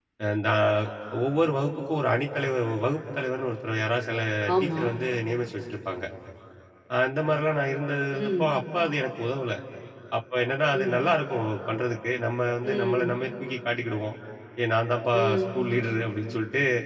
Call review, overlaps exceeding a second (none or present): none